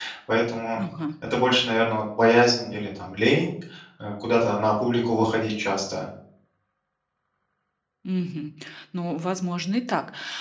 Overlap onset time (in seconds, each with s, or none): none